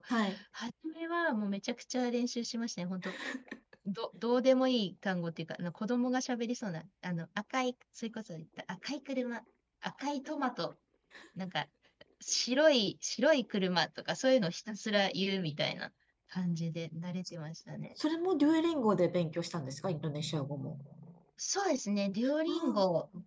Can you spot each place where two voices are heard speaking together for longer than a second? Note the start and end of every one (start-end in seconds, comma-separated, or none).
none